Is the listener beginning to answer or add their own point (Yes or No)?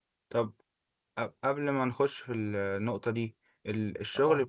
No